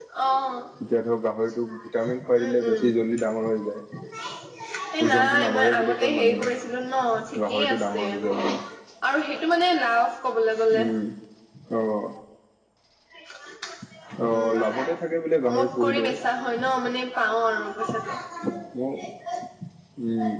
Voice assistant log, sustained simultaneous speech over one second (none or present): present